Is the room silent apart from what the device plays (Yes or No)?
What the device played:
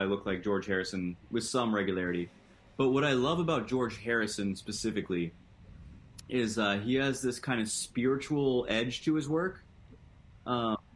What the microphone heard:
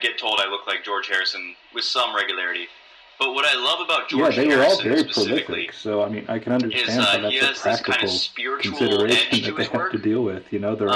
No